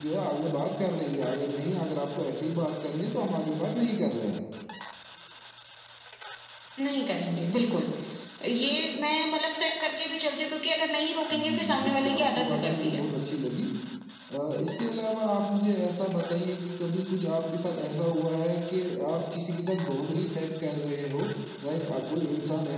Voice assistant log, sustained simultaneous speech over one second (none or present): present